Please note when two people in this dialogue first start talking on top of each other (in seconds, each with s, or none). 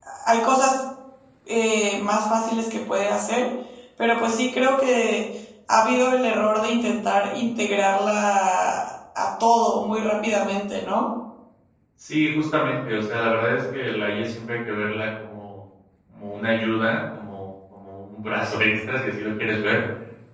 none